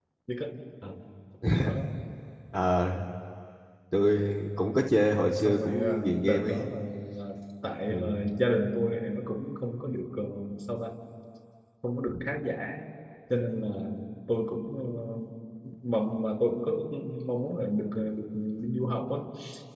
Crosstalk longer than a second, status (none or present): present